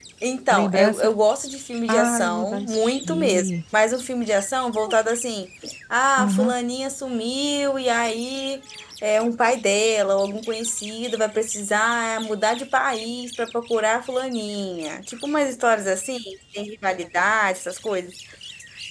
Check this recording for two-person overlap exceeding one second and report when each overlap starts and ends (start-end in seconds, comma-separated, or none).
1.9-3.5